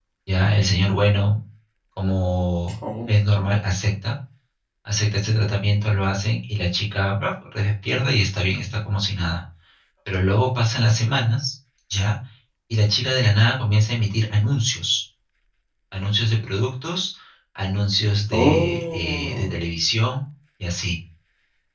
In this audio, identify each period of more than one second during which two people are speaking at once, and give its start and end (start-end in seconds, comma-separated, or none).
18.3-19.6